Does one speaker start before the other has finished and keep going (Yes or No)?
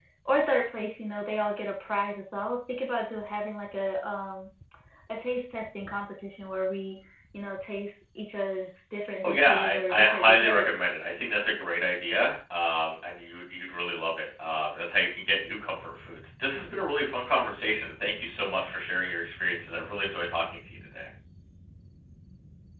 Yes